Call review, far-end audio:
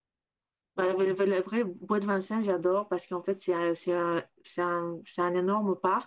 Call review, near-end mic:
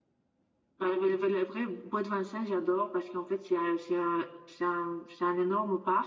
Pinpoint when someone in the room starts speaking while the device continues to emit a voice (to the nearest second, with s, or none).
none